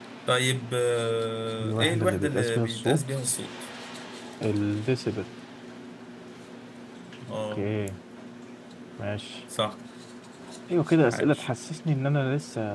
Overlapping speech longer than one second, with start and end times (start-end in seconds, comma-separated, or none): 1.6-3.1